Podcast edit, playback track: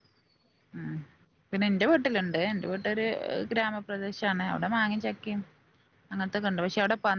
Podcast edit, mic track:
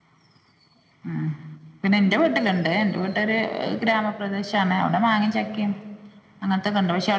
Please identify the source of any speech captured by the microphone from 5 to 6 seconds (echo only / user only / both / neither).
echo only